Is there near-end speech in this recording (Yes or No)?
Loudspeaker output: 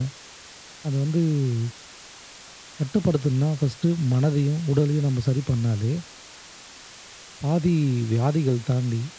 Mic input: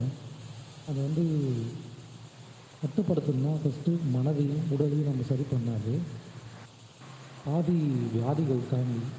No